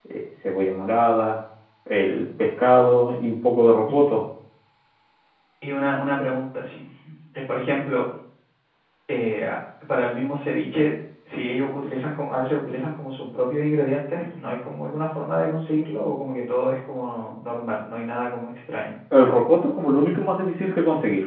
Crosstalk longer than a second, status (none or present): none